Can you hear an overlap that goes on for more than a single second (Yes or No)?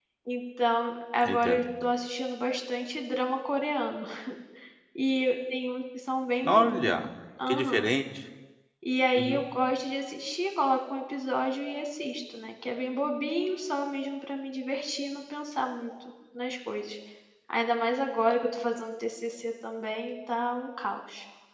No